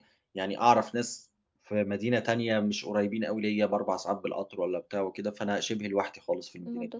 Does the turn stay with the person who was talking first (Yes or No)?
No